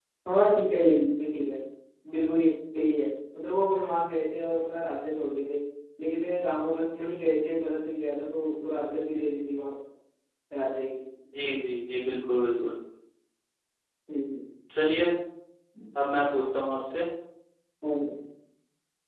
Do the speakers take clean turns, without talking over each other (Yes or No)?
Yes